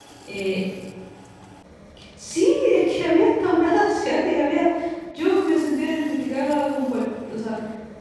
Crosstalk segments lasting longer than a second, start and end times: none

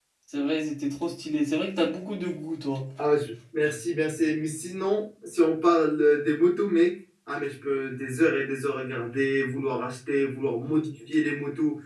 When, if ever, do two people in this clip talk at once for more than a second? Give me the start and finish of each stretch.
none

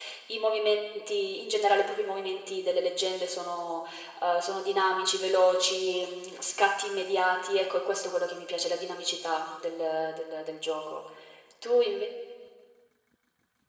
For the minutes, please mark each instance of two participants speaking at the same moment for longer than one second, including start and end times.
none

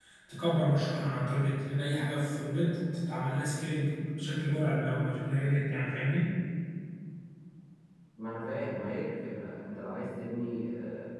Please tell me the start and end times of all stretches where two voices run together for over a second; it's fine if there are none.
none

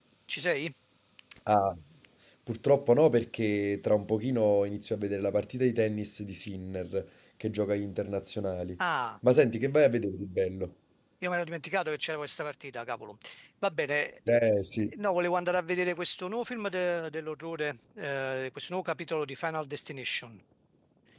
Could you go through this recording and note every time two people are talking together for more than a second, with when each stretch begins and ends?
none

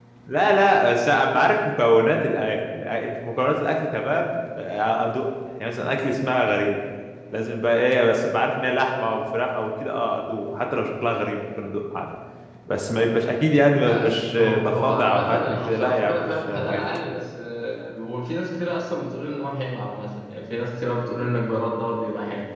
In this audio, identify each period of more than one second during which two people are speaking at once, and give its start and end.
14.4-17.0

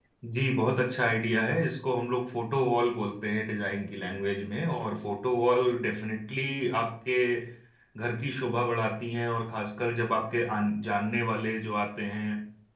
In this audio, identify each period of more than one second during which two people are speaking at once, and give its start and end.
none

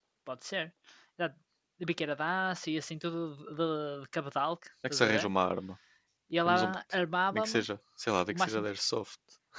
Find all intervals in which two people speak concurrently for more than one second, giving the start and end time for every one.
none

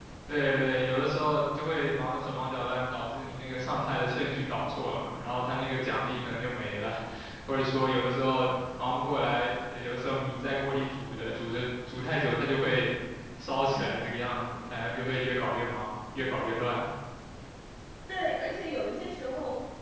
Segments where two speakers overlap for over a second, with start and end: none

